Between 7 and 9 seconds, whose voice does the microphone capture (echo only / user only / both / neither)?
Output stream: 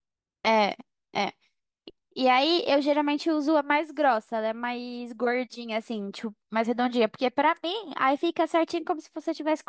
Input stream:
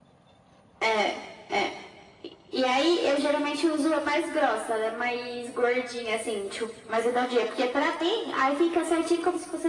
echo only